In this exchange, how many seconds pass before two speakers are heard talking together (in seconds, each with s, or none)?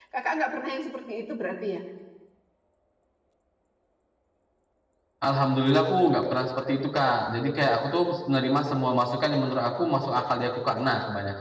none